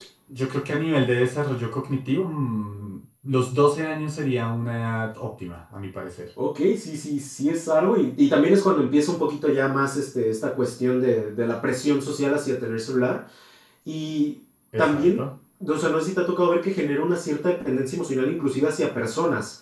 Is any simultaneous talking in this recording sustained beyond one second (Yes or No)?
No